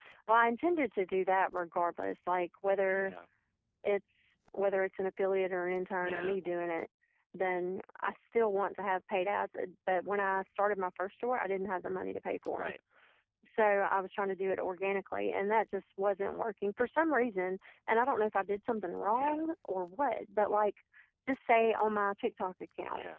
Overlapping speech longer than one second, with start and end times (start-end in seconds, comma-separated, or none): none